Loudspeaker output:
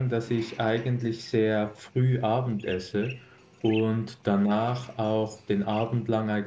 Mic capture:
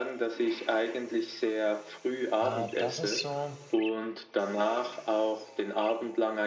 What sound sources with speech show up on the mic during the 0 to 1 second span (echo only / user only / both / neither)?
echo only